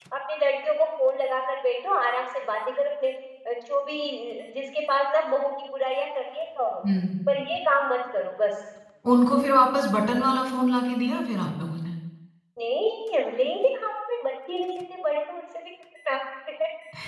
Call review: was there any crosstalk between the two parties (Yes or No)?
No